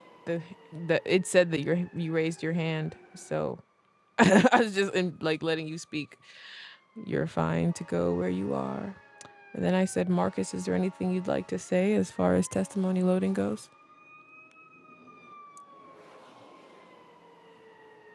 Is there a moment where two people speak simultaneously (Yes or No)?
No